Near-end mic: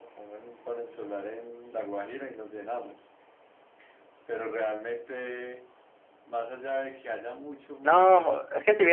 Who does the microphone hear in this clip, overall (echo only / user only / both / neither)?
both